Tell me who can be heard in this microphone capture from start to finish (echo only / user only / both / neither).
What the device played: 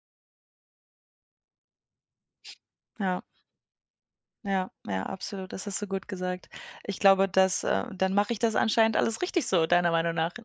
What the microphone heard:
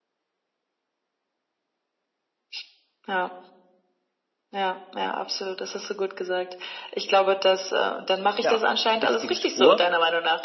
both